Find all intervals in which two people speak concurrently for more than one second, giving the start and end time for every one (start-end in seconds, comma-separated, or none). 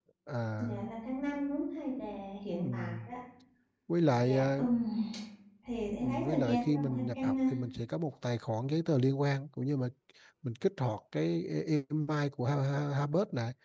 6.0-7.3